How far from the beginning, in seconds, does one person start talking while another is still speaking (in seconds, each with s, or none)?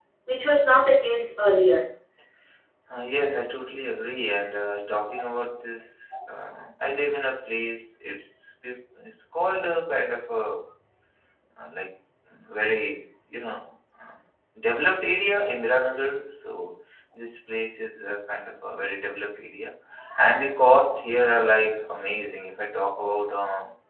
none